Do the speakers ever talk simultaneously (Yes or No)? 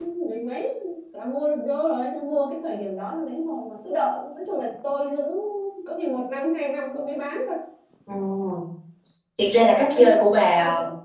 Yes